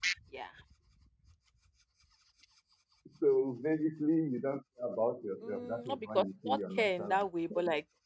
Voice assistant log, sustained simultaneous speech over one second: present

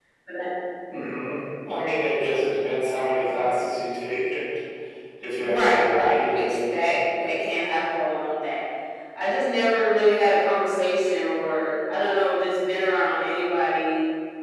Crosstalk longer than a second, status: present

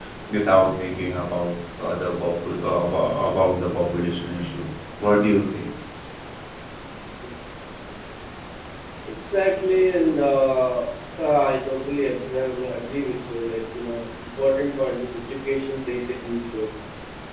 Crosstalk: none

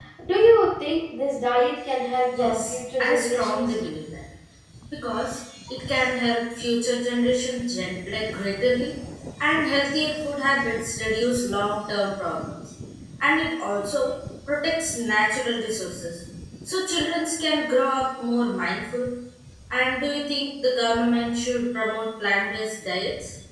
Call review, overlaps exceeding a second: present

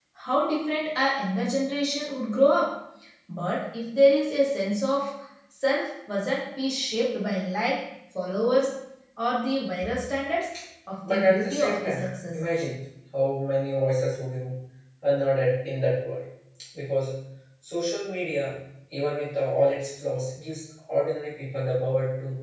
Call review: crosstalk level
present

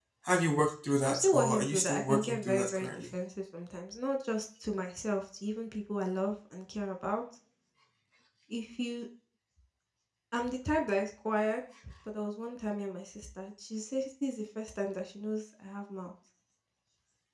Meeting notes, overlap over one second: present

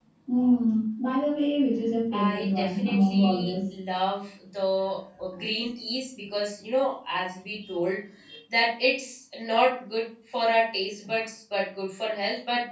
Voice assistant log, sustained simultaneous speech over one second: present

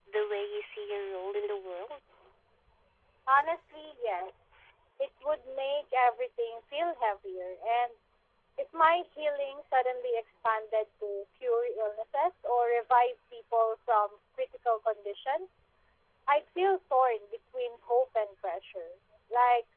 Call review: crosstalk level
none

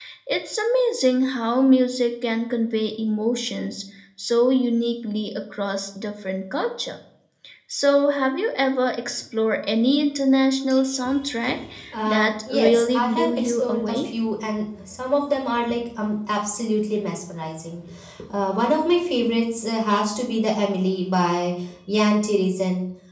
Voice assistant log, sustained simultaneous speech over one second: present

